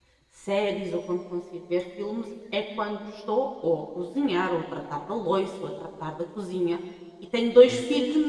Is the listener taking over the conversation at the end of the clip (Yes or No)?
No